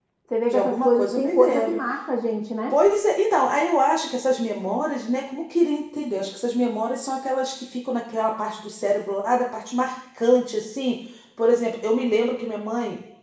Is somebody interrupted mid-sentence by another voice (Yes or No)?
Yes